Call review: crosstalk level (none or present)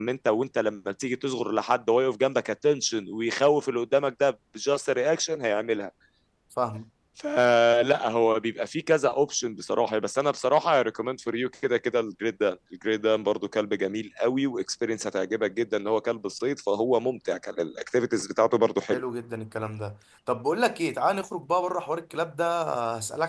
none